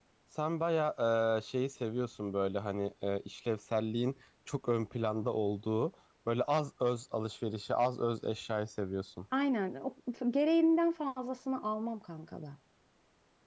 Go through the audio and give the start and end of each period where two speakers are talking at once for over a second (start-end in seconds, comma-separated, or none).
none